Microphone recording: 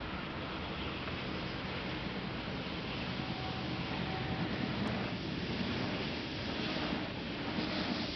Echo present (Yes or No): No